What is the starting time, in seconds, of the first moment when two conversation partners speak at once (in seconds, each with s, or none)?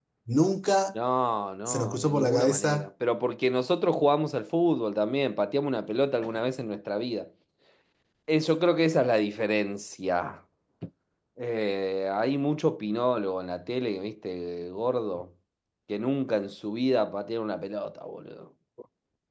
1.7 s